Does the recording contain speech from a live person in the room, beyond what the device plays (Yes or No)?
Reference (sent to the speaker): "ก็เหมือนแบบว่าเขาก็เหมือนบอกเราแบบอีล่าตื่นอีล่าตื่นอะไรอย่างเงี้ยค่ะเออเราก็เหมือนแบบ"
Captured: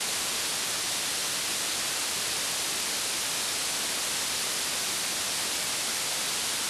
No